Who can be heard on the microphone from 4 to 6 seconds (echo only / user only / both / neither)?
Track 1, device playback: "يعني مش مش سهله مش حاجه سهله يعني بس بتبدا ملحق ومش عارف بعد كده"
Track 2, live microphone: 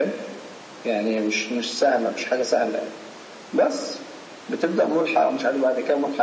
echo only